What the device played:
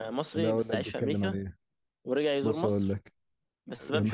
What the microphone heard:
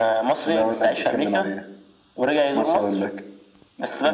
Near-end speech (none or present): none